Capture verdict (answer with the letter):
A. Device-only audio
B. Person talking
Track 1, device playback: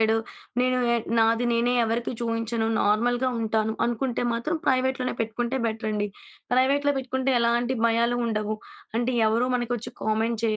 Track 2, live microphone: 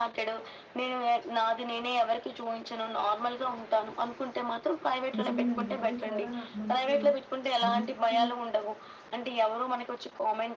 B